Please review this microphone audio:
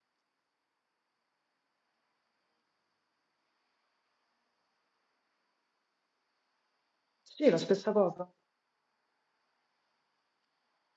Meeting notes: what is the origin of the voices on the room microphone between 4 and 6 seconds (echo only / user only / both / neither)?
neither